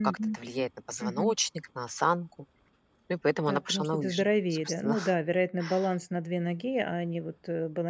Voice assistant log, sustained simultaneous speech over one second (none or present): present